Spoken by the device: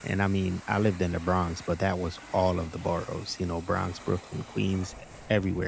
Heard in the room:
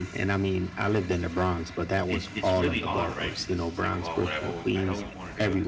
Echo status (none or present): present